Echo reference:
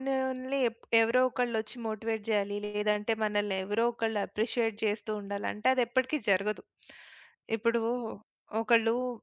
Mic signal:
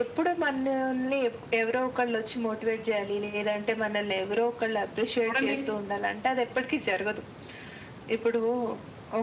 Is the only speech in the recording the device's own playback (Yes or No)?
No